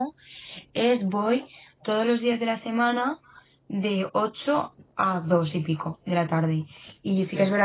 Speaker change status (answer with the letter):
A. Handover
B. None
B